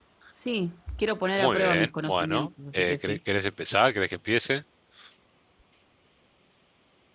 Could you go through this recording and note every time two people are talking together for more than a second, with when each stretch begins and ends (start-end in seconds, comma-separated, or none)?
1.4-3.2